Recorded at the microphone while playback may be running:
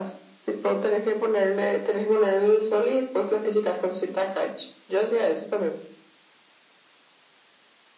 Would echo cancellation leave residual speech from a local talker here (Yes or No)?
No